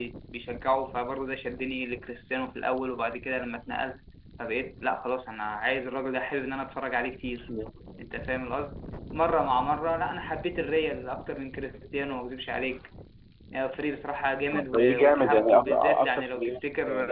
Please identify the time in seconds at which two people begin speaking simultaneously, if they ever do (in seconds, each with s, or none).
14.5 s